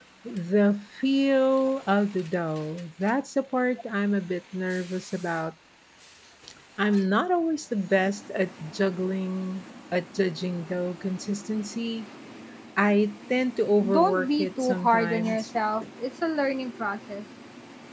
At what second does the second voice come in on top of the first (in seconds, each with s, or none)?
13.8 s